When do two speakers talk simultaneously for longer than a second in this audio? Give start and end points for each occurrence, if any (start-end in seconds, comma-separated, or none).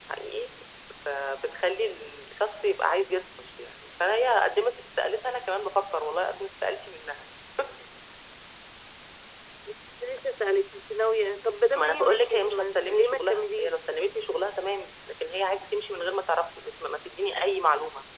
11.8-13.7